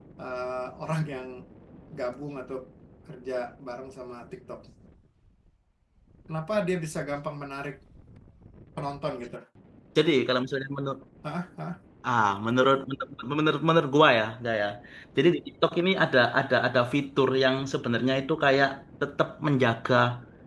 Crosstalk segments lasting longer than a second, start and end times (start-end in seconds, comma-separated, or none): none